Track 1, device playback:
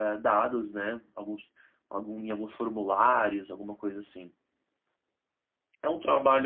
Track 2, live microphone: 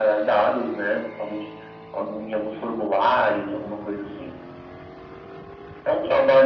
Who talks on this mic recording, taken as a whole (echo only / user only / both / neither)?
echo only